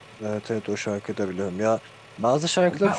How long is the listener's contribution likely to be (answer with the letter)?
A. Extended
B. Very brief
A